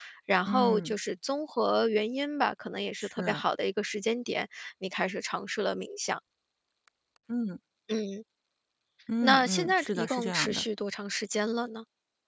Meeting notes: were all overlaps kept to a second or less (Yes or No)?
No